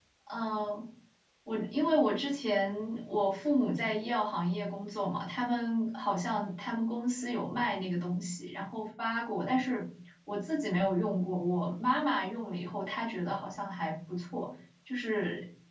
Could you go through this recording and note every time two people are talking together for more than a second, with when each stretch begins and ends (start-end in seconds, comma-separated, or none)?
none